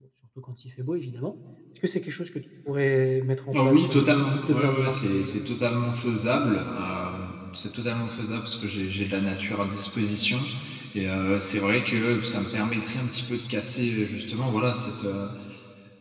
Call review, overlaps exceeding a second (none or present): present